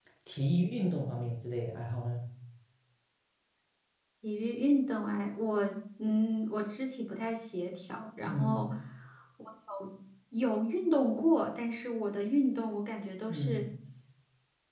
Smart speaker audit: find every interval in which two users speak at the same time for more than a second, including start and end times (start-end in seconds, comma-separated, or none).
none